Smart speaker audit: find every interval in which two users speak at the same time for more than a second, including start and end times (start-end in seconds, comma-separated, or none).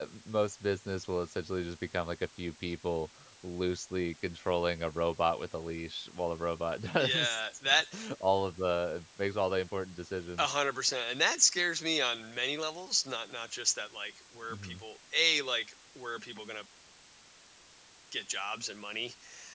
none